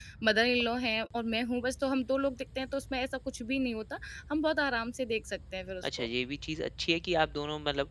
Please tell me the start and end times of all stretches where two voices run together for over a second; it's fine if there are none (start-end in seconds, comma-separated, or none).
none